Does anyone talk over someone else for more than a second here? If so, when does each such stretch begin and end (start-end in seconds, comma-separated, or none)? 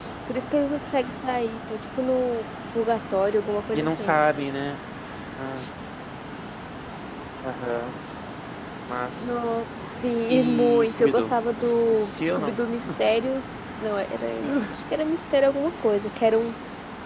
10.3-12.6